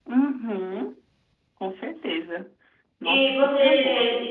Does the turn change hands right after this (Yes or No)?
Yes